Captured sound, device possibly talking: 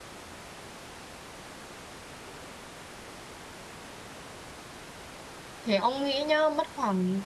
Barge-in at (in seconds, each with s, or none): 5.6 s